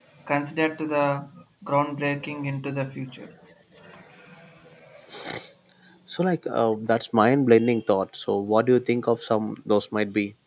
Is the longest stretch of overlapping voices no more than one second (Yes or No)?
Yes